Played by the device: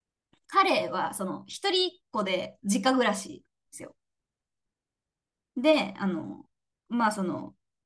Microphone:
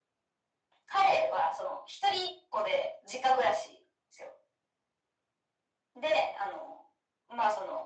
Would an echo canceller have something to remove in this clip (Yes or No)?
Yes